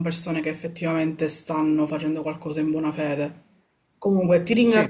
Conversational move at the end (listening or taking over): listening